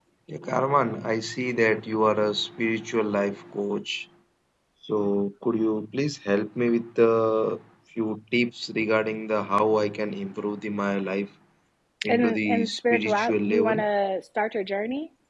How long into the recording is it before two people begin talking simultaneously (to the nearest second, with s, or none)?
12 s